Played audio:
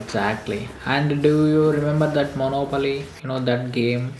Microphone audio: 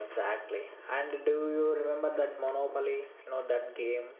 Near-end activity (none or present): none